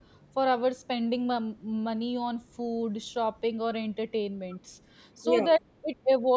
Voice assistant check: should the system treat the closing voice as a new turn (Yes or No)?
No